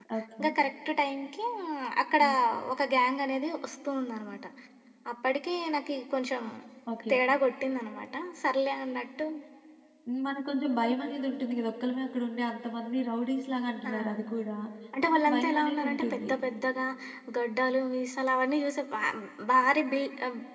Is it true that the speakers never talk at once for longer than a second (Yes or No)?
No